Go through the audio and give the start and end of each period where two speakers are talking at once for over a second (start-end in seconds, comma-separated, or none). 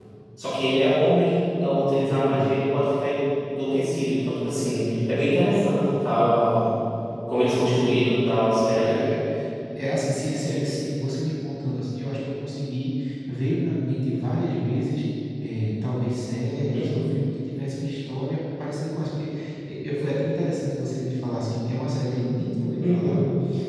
none